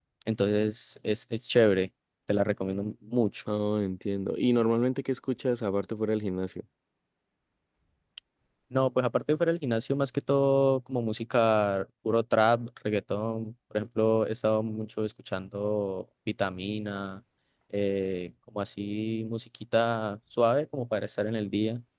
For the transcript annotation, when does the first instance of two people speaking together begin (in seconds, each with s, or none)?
none